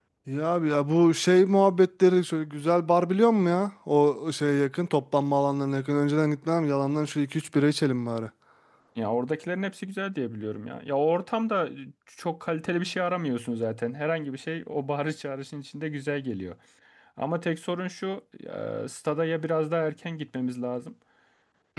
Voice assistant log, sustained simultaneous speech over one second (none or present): none